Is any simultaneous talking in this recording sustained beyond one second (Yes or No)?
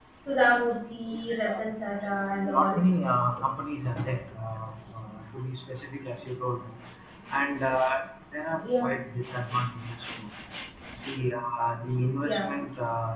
No